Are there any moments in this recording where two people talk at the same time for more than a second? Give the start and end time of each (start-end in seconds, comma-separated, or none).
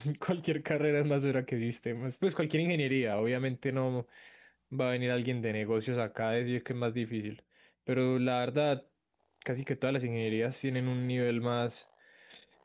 none